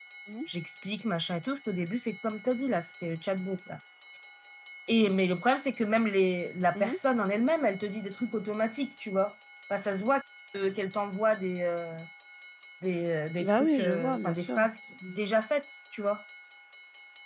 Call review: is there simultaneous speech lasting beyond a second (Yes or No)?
Yes